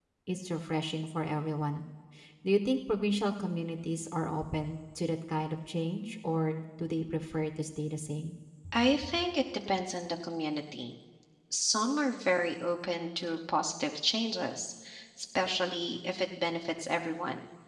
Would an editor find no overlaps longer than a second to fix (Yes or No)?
Yes